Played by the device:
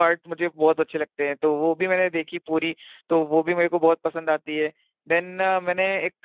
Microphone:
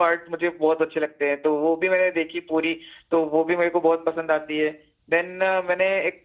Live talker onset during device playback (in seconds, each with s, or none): none